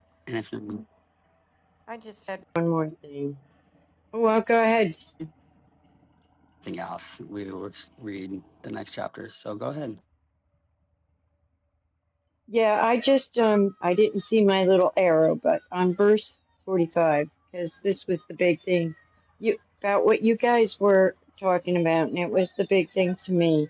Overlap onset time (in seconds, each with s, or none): none